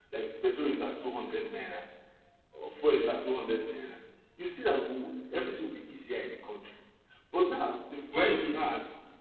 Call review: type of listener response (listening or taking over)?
listening